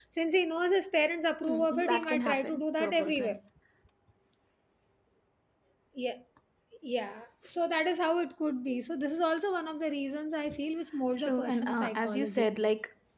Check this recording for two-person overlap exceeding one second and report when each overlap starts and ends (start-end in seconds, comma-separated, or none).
1.4-3.4, 11.2-12.5